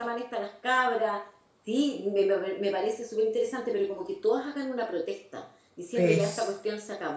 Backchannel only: Yes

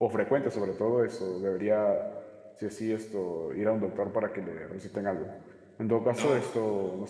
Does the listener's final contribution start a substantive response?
No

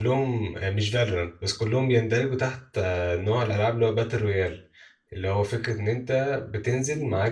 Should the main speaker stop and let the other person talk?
No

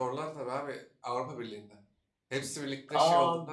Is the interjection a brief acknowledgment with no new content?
No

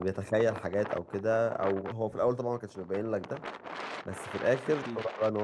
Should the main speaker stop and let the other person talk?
No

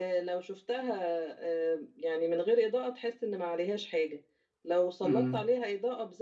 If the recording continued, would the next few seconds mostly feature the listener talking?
No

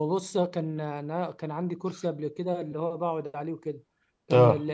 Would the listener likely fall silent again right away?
Yes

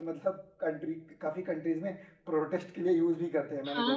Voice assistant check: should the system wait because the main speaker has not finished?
No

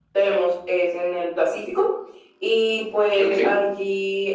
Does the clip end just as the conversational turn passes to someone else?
No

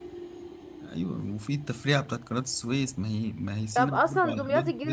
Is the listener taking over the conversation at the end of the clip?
Yes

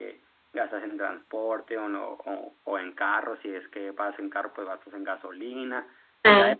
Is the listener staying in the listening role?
Yes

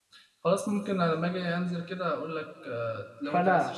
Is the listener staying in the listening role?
No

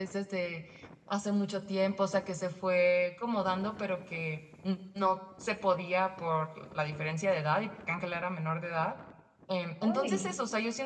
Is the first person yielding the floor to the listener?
No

